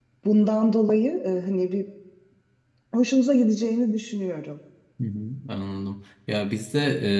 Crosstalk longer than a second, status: none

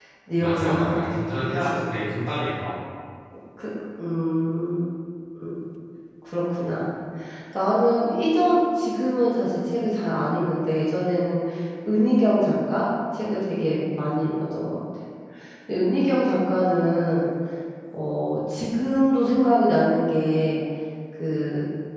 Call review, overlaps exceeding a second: present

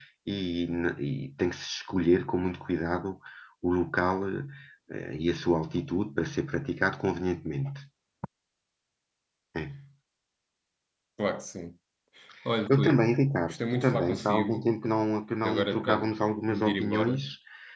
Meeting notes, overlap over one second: present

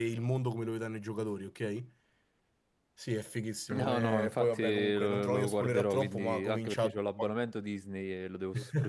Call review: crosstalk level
present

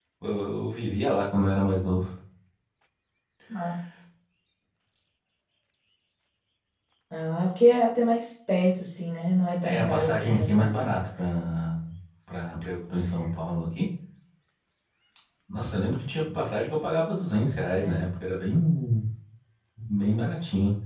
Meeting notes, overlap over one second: present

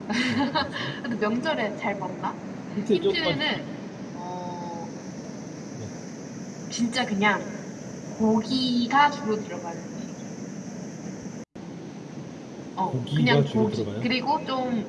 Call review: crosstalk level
present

